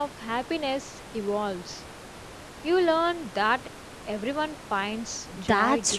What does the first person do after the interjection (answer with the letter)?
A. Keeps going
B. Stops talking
B